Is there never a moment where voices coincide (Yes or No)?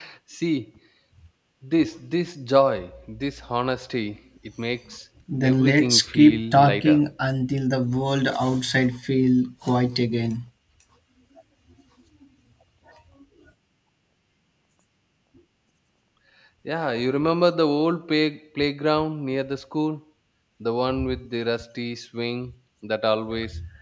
No